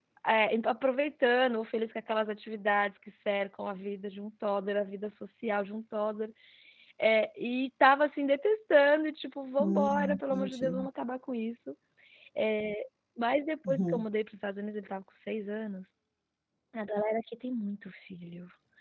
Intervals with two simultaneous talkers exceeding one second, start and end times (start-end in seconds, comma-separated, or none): 9.6-10.9